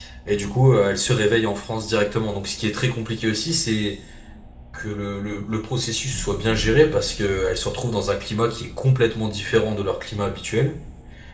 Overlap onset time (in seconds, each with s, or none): none